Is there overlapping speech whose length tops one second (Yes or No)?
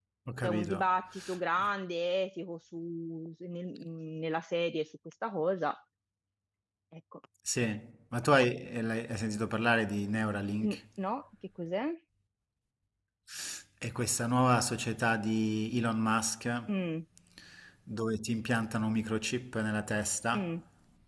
No